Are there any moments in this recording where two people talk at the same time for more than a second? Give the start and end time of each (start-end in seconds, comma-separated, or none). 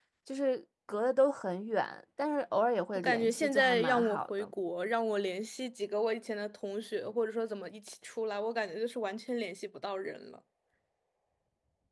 3.0-4.5